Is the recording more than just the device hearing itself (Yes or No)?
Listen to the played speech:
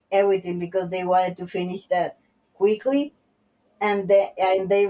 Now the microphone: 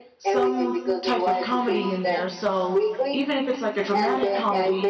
Yes